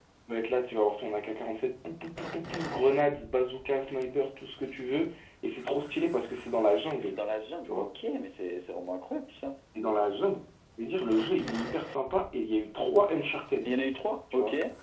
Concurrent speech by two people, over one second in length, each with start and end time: none

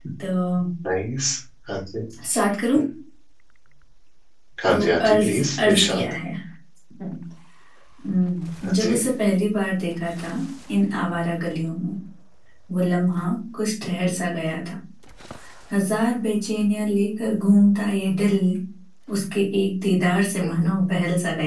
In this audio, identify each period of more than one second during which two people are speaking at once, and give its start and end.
4.7-6.0

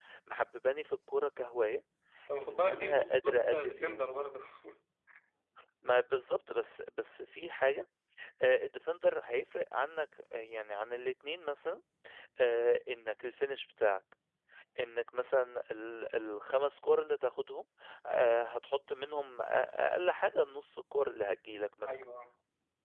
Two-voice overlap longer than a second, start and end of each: 2.4-4.0

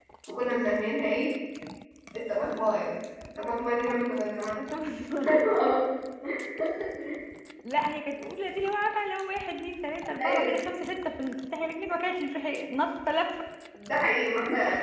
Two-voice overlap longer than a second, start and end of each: none

